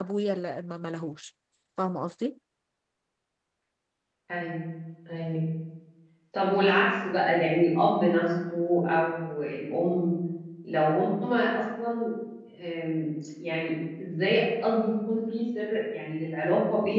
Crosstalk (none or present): none